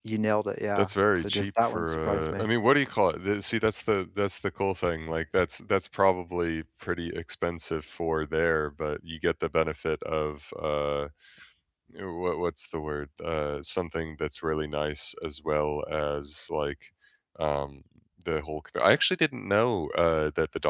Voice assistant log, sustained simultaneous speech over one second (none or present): present